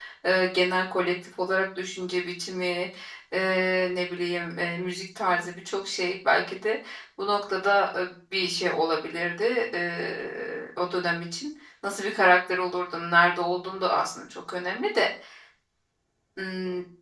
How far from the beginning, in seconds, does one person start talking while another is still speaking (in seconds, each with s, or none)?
none